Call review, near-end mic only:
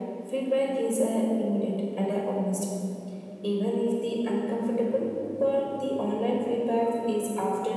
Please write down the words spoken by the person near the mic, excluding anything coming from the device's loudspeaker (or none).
none